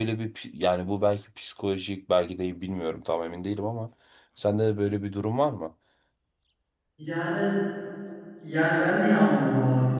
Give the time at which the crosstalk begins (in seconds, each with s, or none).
none